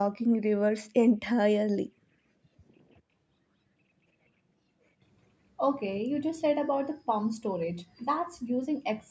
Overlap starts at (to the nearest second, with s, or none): none